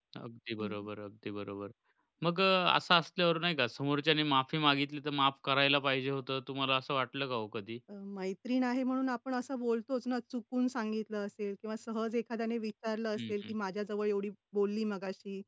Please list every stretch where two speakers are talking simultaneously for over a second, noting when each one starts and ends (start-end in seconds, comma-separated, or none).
none